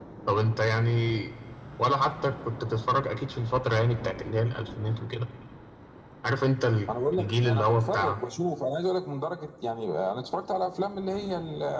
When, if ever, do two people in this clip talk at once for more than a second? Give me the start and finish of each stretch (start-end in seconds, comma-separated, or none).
6.9-8.2